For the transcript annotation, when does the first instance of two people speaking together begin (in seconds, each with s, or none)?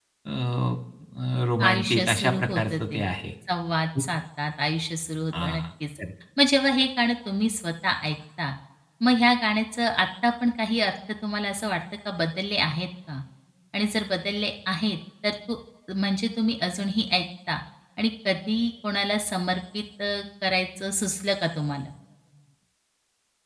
1.7 s